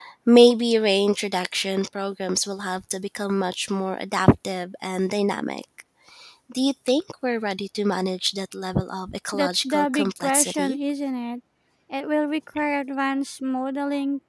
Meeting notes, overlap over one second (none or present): present